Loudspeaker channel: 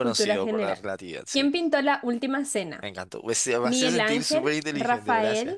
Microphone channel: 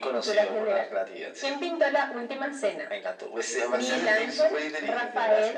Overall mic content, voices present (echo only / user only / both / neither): echo only